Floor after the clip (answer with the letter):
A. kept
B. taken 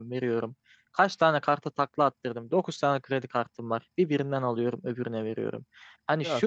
A